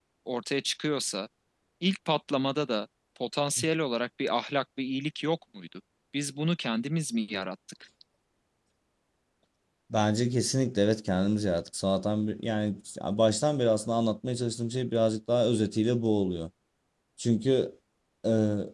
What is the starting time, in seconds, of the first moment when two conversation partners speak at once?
none

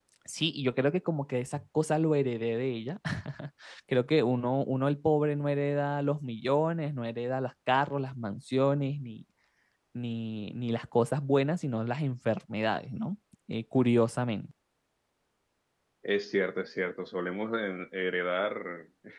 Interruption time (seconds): none

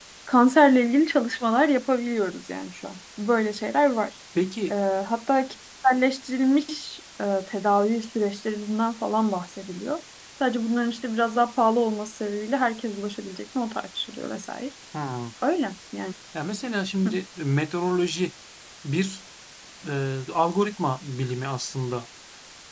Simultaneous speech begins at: none

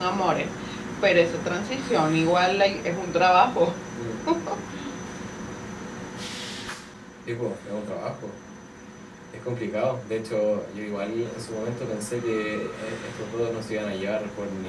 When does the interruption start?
none

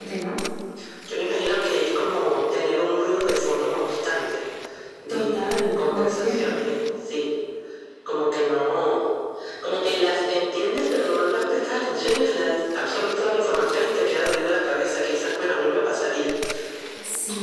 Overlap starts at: 5.1 s

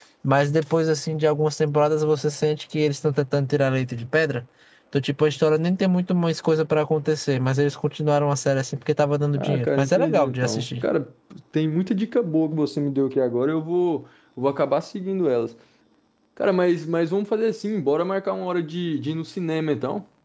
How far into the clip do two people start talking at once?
9.4 s

